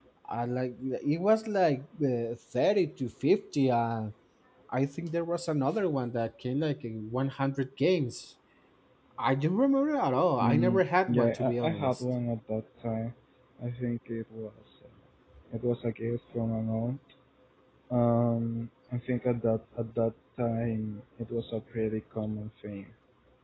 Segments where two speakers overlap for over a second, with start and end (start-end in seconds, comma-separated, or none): 10.4-12.0